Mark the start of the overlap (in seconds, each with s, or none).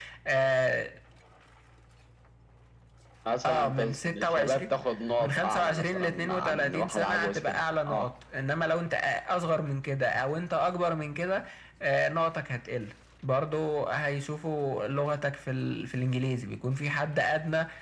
3.5 s